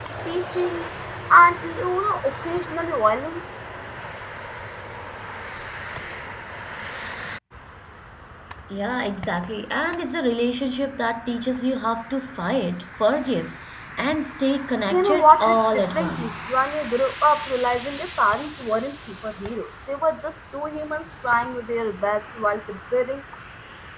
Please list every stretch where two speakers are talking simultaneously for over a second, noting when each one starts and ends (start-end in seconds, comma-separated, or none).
14.9-16.3